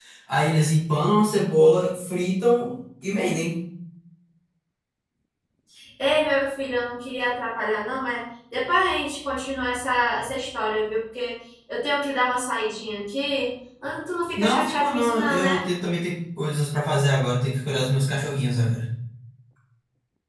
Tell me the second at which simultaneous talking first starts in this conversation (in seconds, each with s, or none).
14.4 s